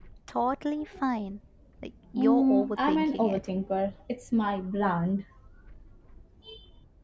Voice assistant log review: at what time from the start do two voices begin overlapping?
2 s

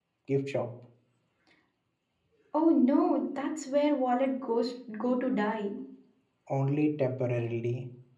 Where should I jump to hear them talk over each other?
none

